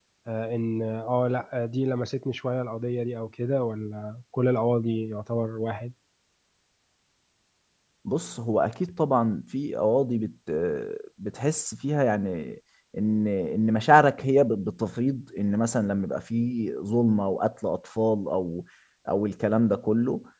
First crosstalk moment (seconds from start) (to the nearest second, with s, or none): none